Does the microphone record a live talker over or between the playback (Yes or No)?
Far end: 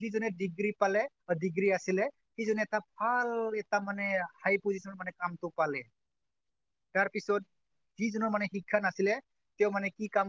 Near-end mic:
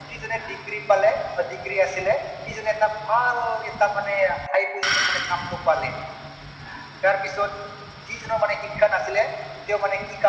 No